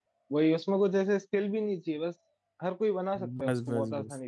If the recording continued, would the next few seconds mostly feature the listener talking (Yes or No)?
Yes